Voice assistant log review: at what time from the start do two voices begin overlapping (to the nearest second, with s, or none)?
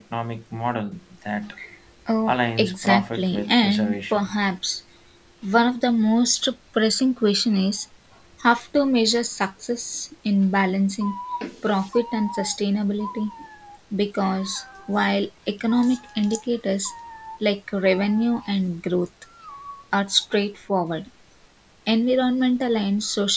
2 s